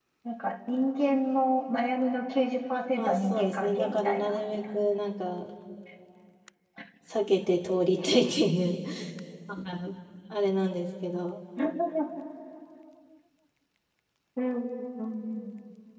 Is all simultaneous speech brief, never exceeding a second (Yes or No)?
No